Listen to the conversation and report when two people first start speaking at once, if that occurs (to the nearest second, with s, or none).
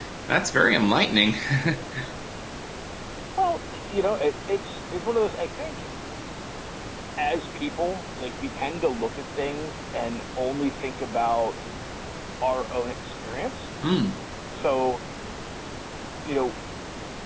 none